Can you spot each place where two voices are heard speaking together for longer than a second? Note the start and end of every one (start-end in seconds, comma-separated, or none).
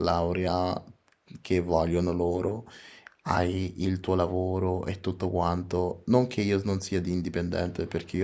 none